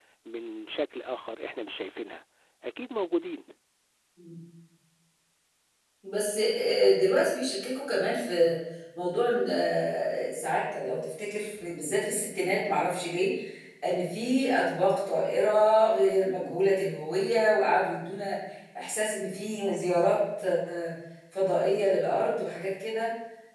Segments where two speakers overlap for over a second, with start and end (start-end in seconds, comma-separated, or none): none